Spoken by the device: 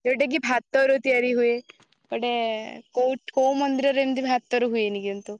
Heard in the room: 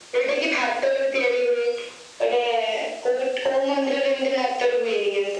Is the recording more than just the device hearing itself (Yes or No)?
No